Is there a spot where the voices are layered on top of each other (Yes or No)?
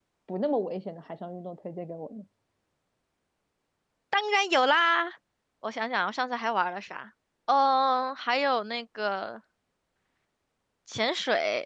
No